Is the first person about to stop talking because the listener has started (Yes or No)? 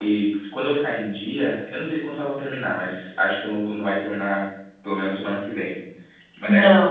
No